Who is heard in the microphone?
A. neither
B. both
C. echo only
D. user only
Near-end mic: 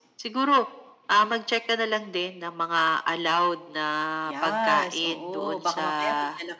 B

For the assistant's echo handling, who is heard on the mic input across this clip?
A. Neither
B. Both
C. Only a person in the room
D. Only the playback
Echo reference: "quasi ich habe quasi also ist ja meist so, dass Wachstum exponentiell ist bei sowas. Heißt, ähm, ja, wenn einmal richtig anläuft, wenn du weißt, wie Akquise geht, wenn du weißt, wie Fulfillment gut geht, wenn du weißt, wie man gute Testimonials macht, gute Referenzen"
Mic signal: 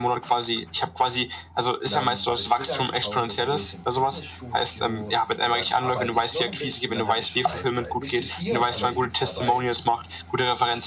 B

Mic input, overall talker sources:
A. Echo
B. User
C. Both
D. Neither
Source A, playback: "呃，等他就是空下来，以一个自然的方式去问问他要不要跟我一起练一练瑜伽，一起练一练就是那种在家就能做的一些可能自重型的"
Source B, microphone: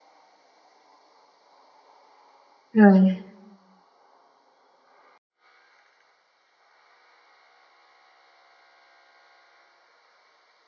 B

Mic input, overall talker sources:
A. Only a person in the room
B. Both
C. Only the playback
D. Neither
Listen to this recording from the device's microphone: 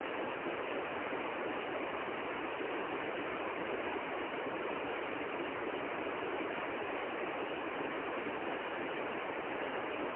D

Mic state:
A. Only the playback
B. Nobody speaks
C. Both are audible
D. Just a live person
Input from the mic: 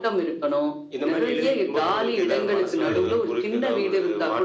C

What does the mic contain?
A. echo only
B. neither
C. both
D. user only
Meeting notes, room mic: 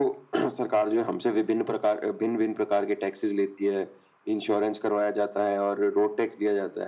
A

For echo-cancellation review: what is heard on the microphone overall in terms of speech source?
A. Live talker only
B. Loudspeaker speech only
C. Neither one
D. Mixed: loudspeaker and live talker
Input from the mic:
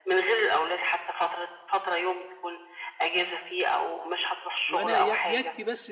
D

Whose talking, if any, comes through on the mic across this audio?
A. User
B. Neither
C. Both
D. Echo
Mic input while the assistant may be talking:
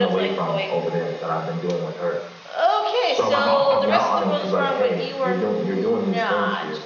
C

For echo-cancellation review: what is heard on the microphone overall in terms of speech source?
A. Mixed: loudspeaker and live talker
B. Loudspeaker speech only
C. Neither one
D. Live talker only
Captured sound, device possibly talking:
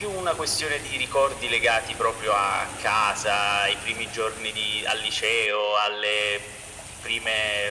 B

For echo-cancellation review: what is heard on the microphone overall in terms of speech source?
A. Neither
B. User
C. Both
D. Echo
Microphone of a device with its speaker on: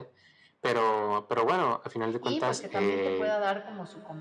C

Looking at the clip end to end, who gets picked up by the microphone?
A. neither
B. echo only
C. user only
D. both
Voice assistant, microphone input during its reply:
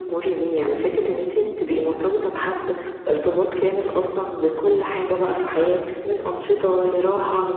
B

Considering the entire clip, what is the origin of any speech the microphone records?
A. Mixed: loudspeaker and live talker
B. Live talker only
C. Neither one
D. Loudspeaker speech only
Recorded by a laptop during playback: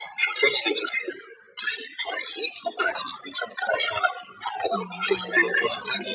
A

